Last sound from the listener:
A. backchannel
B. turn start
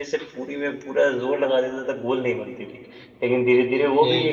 A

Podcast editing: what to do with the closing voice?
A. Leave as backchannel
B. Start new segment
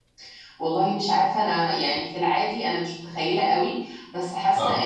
A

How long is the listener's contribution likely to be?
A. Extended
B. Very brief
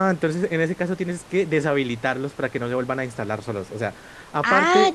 B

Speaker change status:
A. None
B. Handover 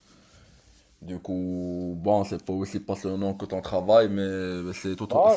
B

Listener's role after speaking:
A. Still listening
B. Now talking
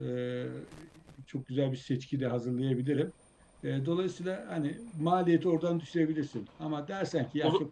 A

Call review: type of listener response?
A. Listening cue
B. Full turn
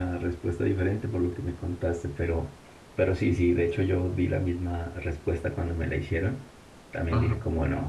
A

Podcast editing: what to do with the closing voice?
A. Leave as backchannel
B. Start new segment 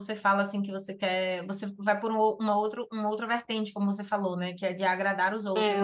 B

